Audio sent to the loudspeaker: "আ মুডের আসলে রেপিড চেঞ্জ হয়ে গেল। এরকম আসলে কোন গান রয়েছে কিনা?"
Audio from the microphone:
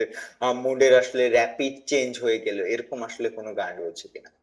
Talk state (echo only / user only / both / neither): echo only